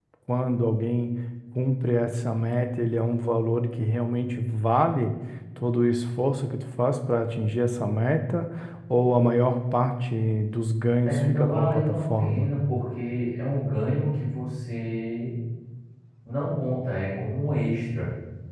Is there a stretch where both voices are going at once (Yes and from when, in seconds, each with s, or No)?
Yes, from 11.0 s